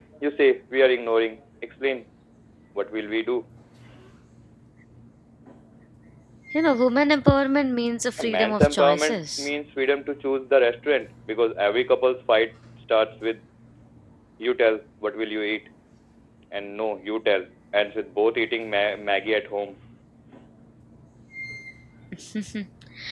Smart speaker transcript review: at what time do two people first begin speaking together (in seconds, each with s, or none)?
8.2 s